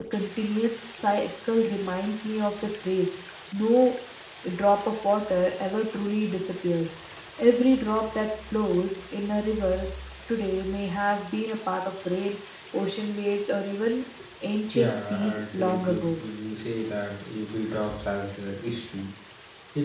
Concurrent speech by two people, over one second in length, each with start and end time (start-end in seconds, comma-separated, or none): 14.7-16.2